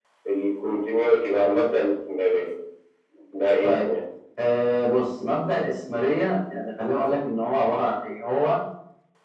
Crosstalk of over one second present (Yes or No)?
No